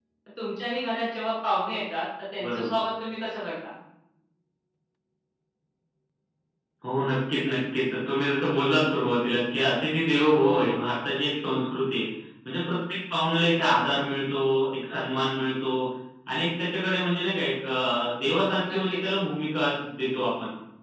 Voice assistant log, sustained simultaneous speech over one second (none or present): none